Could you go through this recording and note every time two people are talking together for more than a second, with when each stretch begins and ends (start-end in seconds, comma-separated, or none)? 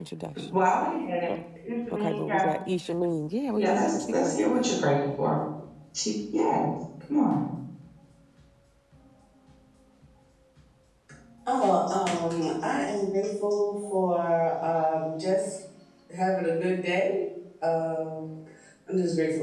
3.5-4.9